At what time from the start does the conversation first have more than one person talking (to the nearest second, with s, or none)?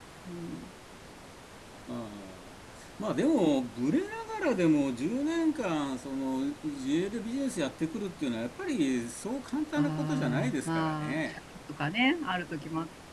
10 s